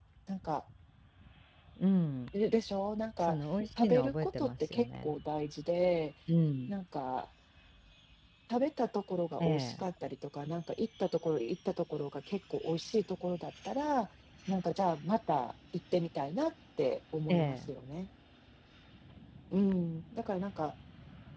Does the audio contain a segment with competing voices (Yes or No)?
Yes